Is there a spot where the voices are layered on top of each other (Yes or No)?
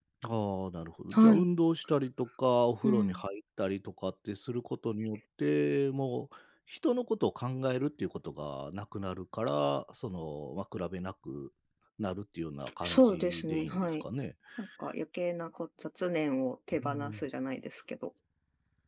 Yes